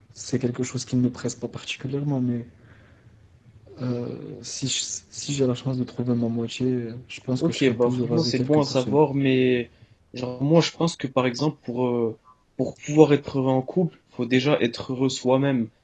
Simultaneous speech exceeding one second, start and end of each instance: 7.4-9.0

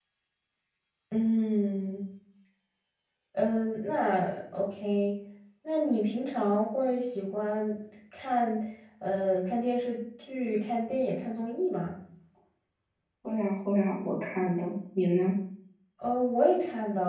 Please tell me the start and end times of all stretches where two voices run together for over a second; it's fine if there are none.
none

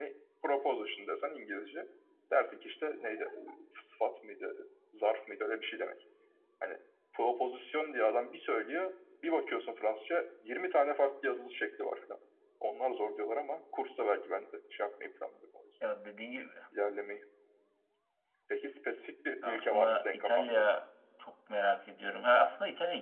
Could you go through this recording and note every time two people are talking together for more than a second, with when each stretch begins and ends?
19.4-20.6

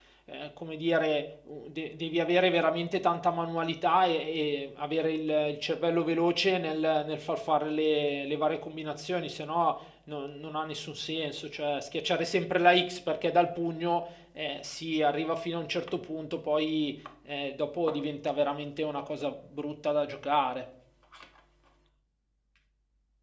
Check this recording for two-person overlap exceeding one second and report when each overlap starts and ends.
none

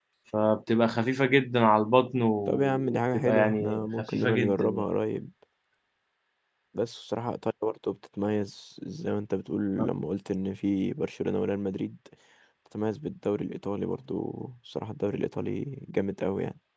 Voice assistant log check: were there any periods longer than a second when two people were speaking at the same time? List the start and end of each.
2.5-4.8

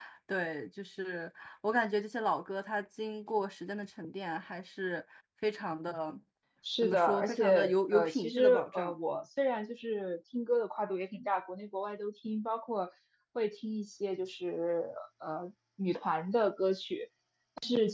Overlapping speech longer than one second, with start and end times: 6.8-8.9

